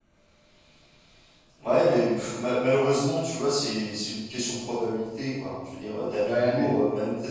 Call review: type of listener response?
listening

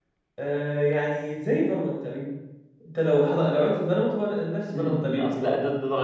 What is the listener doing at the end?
taking over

